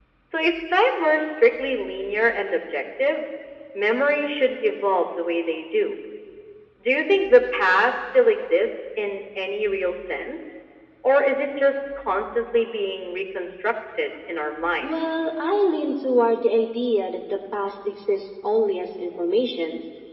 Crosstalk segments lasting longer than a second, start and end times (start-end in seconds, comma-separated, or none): none